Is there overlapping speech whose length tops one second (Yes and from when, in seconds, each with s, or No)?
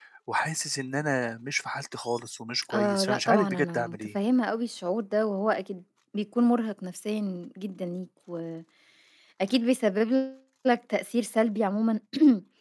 Yes, from 2.7 s